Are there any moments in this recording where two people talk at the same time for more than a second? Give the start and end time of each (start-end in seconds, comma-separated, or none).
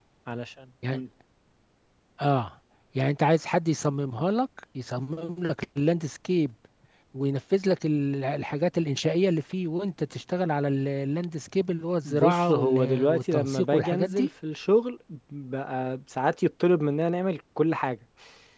12.0-14.3